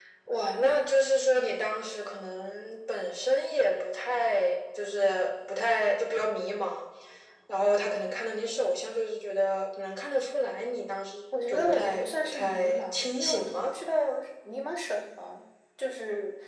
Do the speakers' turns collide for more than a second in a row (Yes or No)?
Yes